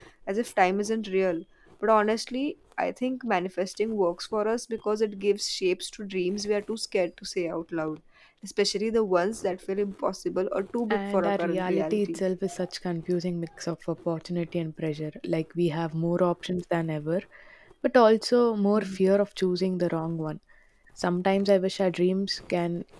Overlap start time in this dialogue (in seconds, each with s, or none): 10.9 s